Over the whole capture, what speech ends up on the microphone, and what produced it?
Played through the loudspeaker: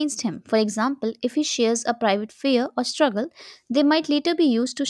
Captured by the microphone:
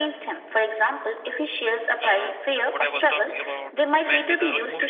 both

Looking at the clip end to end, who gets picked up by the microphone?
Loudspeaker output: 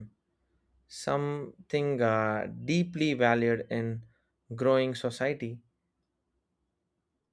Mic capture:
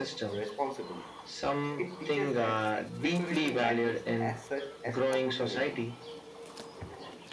both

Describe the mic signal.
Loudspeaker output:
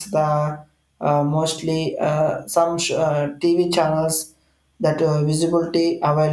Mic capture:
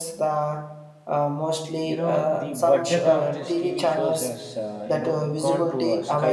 both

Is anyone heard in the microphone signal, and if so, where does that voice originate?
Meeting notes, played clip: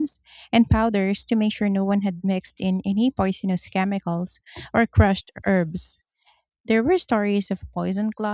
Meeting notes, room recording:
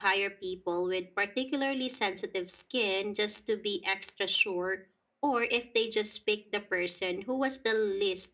user only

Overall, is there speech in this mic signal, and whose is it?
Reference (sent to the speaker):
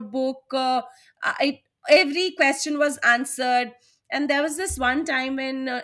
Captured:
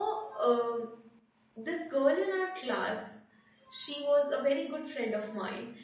user only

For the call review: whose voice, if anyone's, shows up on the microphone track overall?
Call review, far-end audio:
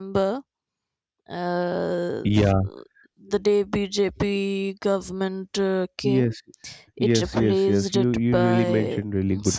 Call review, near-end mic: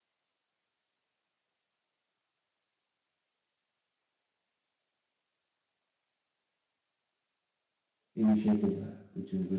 user only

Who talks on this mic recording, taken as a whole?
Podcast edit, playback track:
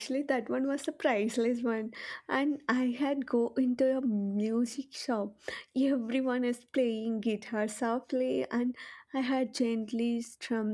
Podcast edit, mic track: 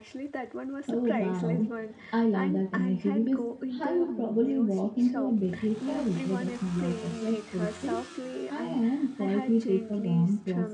both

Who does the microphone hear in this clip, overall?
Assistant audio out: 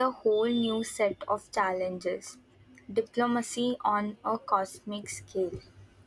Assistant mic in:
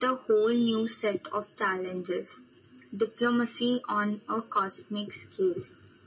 echo only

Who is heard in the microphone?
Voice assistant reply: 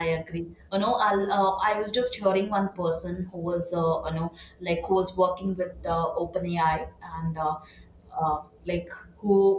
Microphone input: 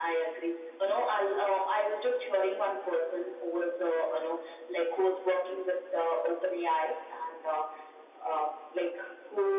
echo only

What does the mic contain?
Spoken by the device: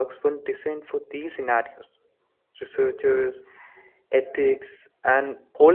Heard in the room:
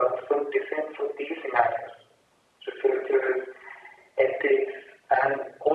echo only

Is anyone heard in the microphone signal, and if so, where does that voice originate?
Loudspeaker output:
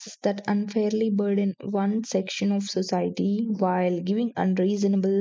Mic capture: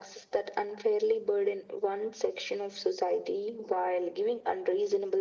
echo only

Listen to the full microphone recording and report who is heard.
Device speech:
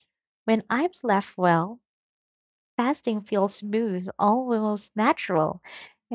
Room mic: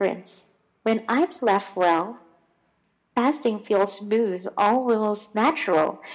echo only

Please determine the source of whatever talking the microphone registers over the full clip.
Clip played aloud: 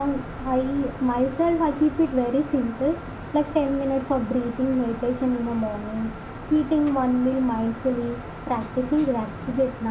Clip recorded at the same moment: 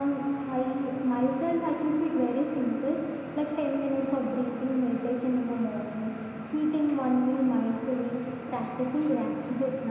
echo only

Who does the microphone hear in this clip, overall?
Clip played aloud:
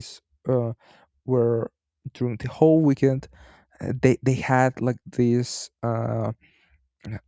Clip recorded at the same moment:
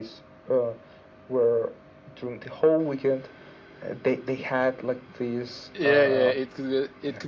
both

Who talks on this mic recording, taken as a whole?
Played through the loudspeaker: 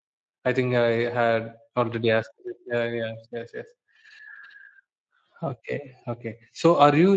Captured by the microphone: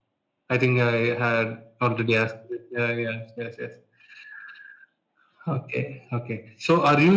echo only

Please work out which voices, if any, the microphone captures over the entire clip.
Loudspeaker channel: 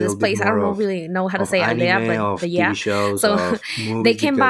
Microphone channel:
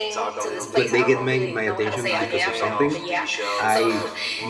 both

